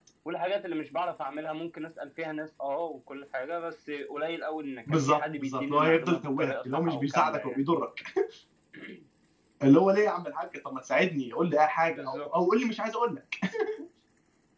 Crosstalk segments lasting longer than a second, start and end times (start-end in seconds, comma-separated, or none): 4.9-7.6